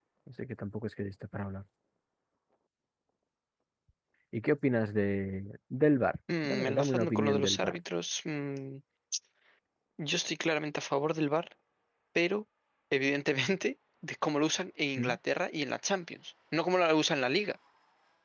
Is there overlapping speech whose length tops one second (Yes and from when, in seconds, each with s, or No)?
Yes, from 6.3 s